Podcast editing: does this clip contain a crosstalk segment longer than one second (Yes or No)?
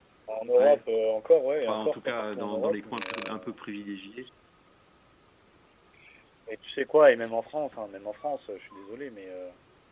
Yes